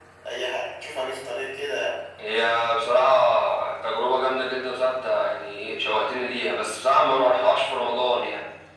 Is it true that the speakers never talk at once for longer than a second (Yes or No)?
Yes